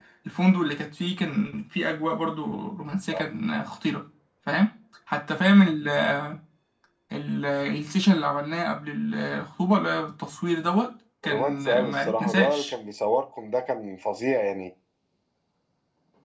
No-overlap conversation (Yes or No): No